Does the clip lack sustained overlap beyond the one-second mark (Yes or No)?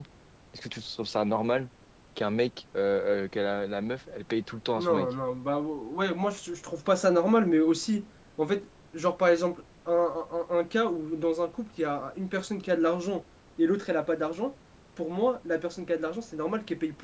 Yes